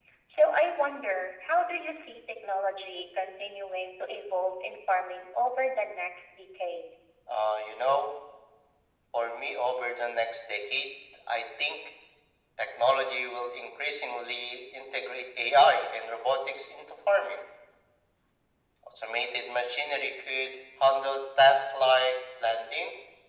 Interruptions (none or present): none